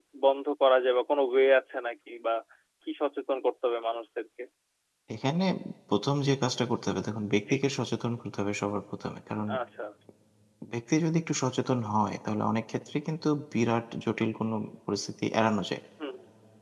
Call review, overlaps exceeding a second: none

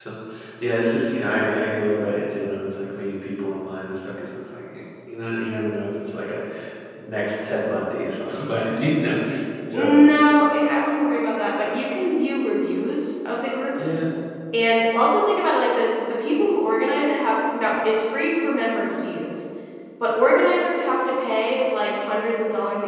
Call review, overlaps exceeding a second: none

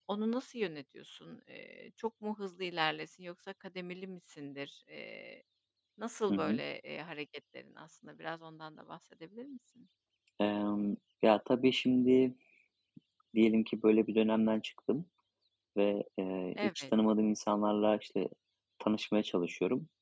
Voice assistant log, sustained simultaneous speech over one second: none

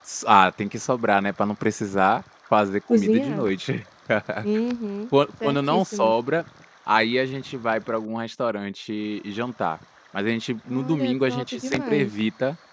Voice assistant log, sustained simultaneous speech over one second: present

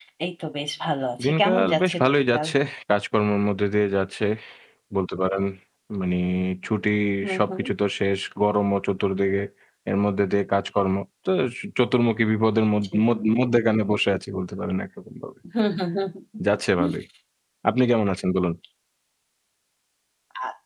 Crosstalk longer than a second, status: present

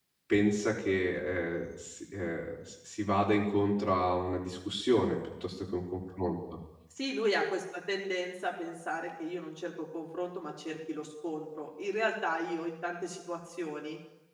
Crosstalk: none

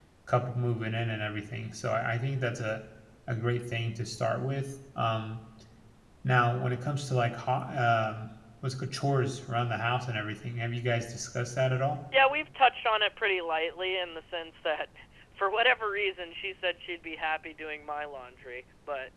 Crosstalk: none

